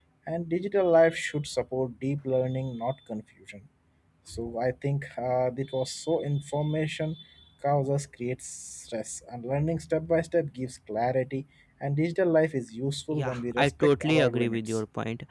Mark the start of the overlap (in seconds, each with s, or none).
13.1 s